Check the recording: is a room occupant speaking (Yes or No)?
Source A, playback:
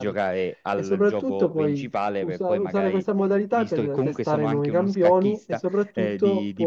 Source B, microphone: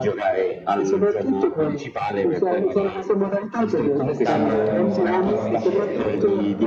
Yes